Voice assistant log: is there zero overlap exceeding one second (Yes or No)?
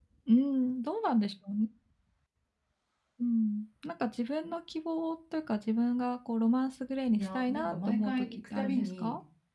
No